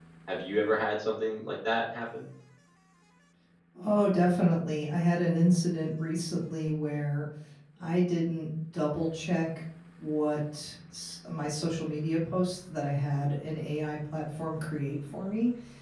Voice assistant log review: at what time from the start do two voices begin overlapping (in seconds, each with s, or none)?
none